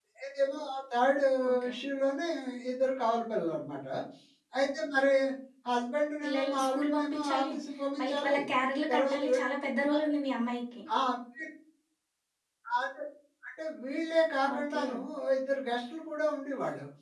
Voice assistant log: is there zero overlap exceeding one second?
No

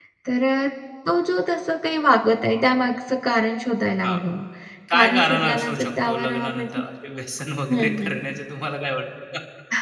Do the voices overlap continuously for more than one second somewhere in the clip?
Yes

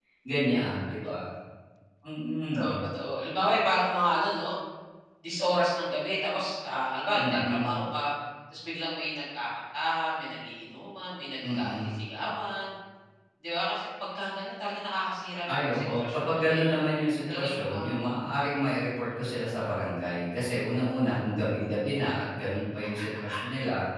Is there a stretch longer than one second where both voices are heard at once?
Yes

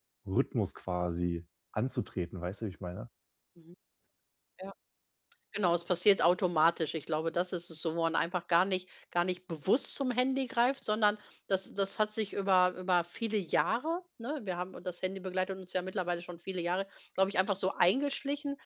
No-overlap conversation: Yes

